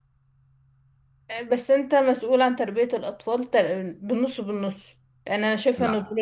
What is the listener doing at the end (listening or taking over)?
taking over